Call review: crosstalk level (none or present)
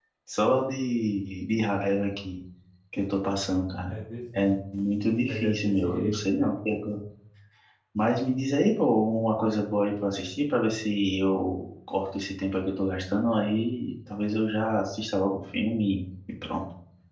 present